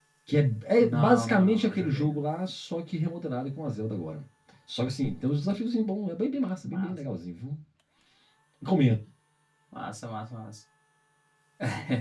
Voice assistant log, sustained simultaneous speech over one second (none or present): present